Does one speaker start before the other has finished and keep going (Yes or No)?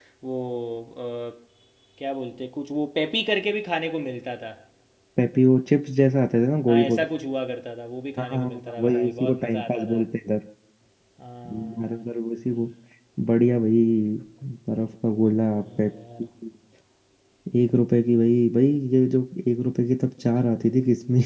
Yes